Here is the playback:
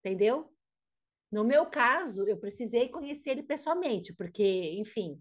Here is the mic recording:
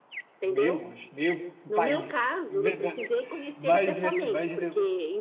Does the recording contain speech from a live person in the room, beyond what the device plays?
Yes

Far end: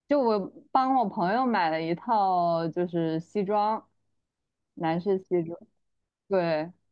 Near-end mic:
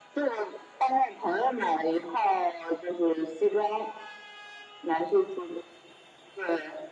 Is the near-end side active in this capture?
No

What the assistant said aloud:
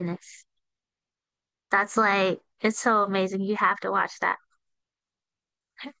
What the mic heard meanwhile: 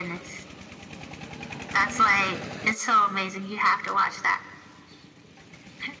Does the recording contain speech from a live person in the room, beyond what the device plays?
No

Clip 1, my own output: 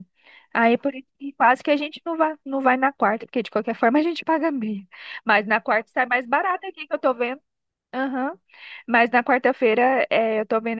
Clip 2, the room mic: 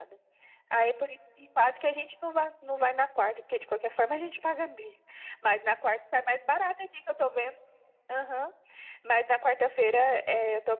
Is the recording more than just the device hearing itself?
No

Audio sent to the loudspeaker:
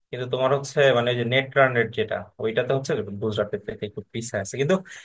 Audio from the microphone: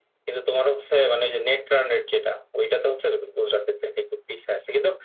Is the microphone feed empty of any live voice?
Yes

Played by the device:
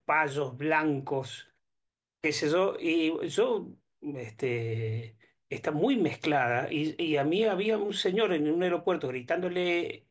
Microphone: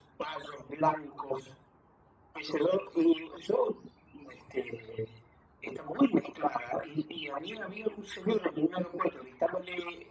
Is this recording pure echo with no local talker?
Yes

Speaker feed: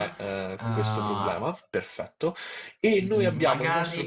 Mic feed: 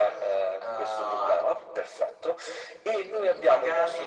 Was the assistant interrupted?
No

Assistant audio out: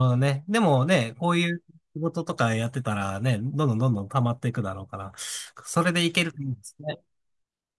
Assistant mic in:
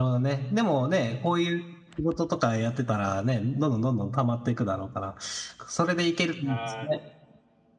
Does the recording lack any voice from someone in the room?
No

